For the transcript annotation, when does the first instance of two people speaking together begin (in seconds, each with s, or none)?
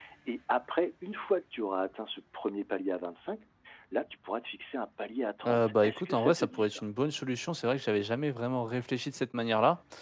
5.4 s